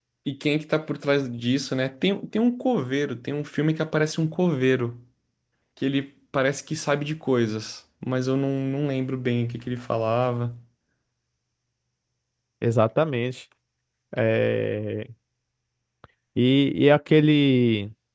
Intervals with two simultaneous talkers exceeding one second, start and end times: none

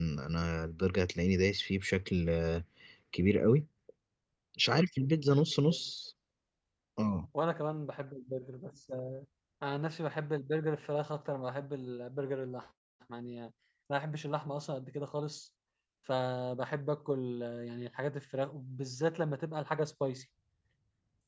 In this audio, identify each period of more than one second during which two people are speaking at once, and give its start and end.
none

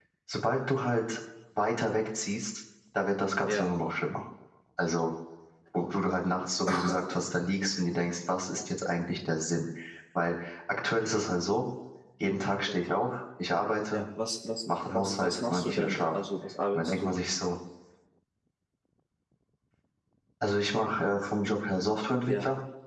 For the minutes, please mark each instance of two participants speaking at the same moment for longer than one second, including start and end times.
14.7-16.3

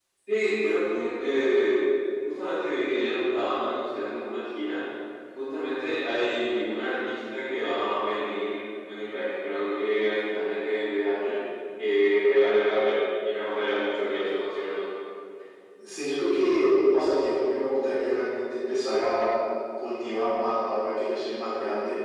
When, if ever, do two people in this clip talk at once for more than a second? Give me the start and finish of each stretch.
none

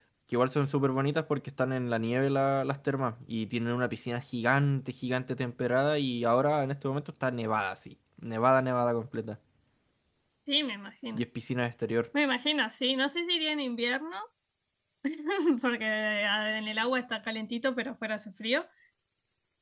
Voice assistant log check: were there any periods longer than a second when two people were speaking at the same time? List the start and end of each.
none

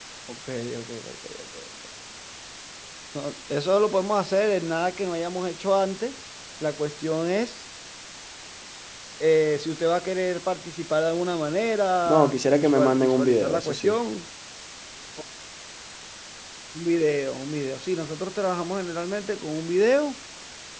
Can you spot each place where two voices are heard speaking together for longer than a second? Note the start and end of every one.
12.1-14.0

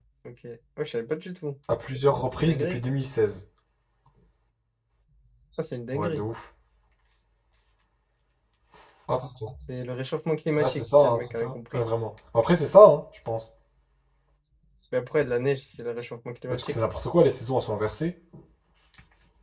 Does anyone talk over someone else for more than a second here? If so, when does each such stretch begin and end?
10.6-11.9

